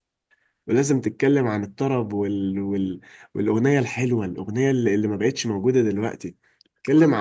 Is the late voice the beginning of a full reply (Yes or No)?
No